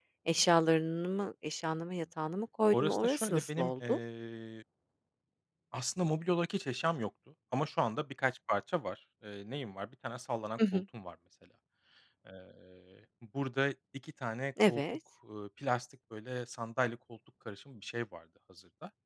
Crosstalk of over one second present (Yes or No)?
Yes